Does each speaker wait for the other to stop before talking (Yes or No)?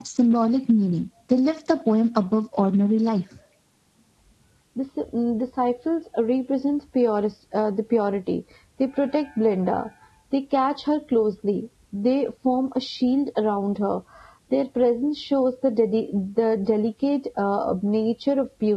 Yes